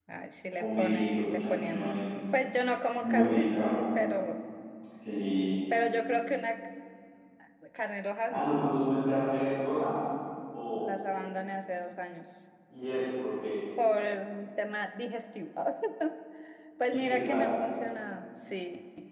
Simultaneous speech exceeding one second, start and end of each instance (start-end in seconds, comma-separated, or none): 0.6-2.1